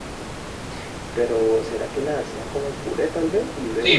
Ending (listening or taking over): taking over